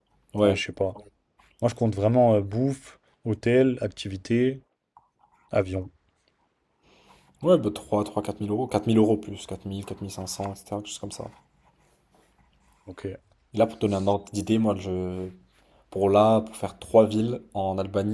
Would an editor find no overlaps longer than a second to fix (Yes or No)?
Yes